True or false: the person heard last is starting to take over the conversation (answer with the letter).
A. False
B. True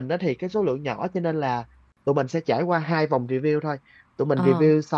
A